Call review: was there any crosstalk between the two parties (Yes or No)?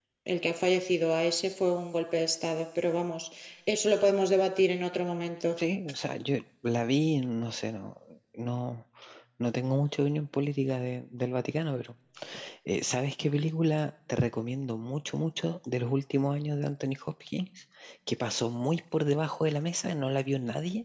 No